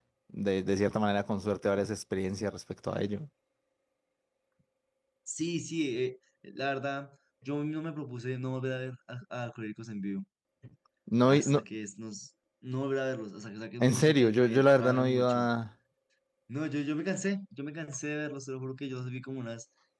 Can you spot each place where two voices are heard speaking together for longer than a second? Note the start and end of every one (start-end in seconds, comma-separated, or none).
13.8-15.5